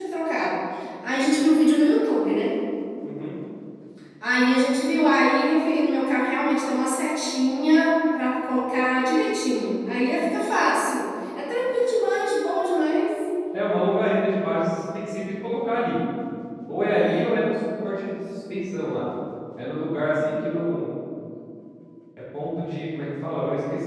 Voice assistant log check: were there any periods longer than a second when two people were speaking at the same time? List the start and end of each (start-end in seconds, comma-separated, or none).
none